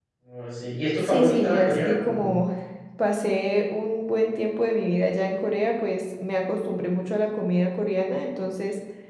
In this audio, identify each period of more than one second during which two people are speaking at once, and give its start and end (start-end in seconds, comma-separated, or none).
1.0-2.3